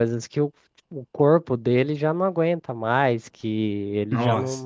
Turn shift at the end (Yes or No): No